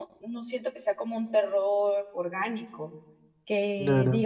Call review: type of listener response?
listening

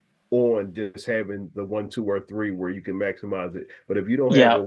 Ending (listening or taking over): listening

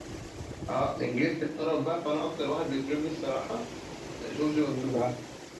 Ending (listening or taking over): taking over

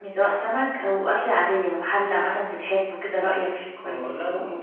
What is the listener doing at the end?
taking over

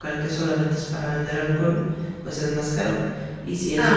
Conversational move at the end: listening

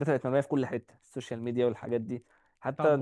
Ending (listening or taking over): taking over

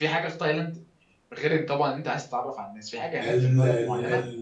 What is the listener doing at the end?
taking over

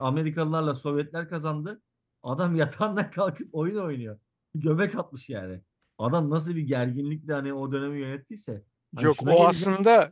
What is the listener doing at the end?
taking over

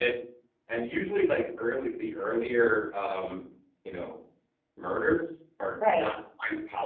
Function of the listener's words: listening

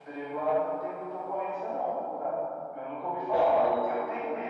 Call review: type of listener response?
listening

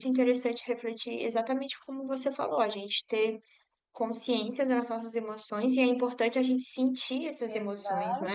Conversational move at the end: taking over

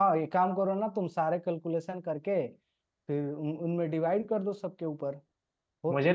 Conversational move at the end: taking over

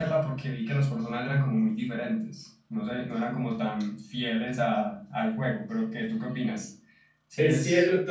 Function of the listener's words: taking over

